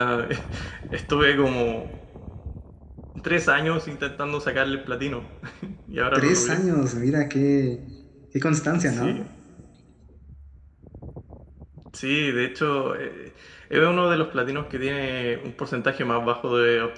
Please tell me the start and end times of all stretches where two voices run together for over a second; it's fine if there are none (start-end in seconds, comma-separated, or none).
none